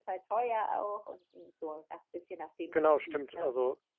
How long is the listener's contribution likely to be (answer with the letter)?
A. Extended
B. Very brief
A